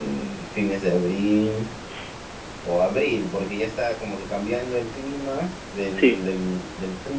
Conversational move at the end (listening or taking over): listening